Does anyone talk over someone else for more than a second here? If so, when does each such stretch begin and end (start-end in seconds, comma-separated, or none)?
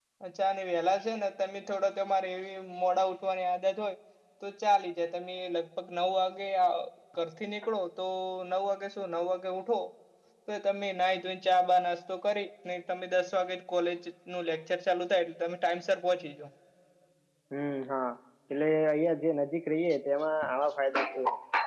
none